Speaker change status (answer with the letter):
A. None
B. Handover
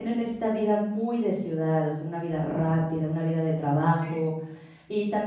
A